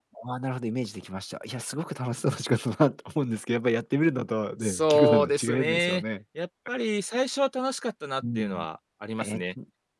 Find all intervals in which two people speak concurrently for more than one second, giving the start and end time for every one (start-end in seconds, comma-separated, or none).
4.6-6.0